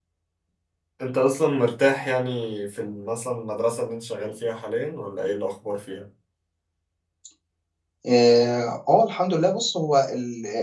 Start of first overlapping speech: none

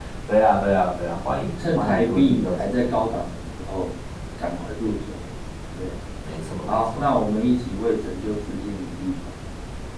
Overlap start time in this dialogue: 1.6 s

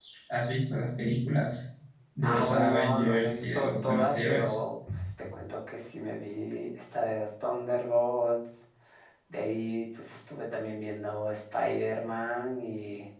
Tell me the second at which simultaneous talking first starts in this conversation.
2.2 s

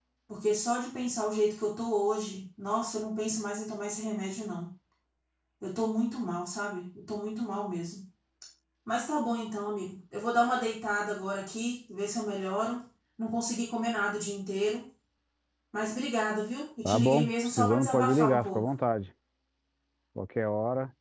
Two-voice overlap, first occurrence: 16.8 s

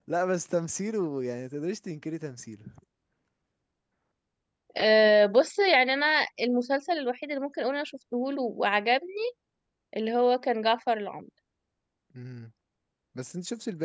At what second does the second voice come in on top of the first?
none

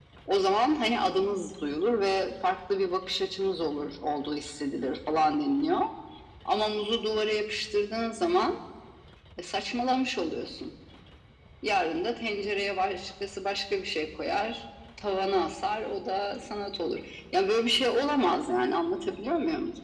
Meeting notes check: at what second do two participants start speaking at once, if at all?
none

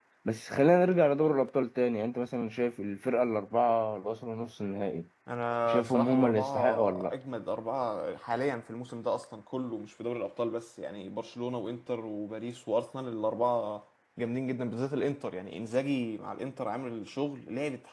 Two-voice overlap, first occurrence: 5.7 s

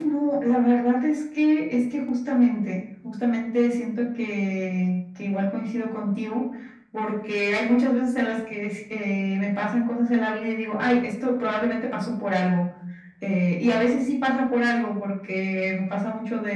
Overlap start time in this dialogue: none

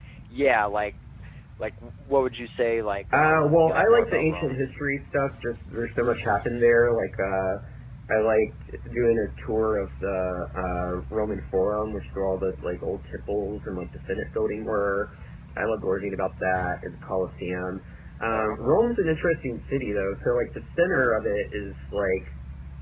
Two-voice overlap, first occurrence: 3.1 s

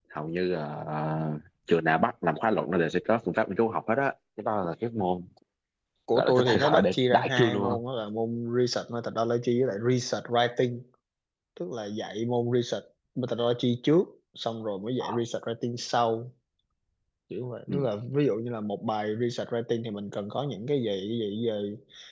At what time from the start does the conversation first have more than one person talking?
6.1 s

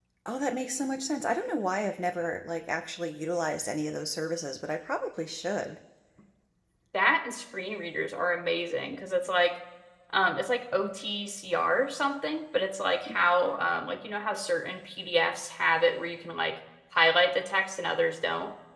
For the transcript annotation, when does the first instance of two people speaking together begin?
none

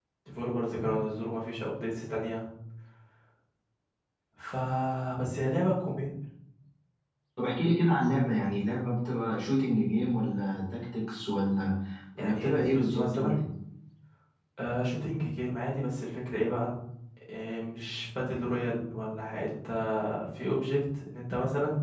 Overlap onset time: 12.2 s

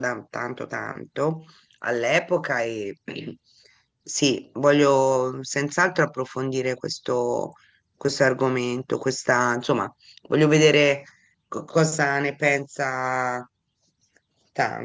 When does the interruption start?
none

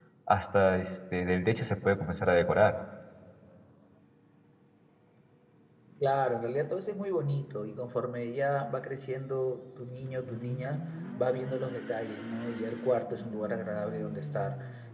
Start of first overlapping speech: none

